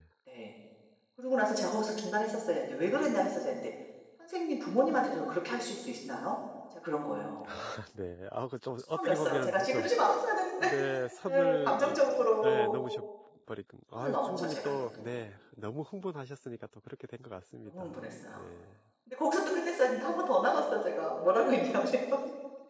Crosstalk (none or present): present